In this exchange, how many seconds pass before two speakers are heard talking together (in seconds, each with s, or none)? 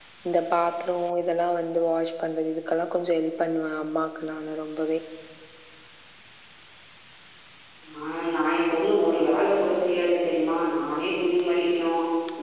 none